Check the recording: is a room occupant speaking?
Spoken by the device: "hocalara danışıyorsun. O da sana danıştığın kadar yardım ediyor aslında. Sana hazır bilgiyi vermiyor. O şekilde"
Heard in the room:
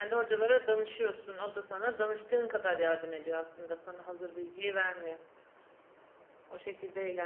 No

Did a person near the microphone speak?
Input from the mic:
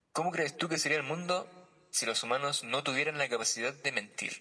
No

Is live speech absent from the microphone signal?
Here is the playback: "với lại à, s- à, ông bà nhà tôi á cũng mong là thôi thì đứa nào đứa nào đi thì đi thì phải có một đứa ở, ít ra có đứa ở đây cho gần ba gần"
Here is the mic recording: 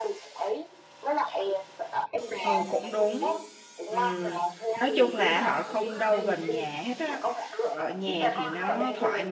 No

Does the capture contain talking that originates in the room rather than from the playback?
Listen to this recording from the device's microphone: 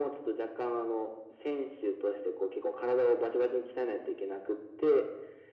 No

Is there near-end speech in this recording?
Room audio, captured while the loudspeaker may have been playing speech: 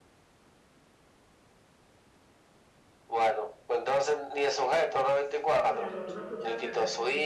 Yes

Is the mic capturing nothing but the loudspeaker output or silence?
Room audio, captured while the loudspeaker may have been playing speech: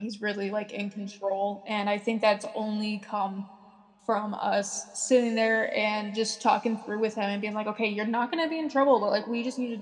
No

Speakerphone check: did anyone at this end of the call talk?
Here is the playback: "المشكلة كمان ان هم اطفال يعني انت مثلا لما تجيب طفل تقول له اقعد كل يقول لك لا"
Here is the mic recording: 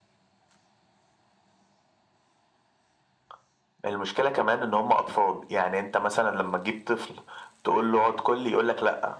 No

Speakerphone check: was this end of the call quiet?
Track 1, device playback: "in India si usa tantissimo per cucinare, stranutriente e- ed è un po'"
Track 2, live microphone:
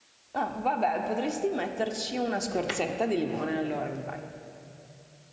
No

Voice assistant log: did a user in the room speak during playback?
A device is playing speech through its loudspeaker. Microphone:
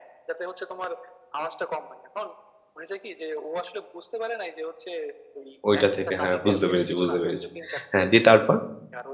Yes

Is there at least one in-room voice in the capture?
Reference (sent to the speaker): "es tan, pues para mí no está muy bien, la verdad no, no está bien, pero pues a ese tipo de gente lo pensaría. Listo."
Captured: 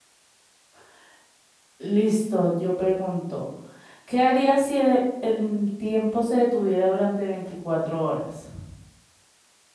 Yes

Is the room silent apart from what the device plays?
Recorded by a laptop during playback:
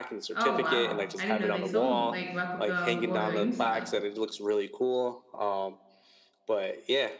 No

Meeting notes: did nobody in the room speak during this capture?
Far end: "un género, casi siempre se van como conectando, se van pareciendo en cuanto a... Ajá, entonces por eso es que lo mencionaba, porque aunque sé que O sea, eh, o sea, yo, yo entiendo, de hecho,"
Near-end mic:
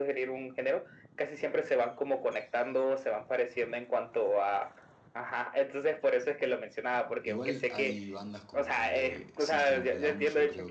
No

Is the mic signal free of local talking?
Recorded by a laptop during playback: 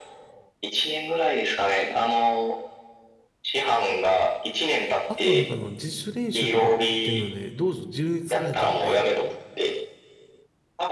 No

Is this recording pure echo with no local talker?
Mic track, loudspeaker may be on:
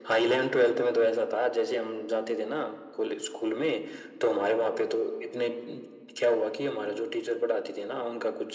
Yes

